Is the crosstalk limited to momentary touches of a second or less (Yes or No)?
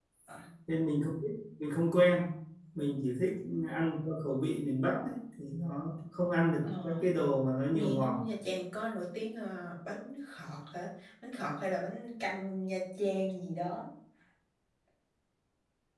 Yes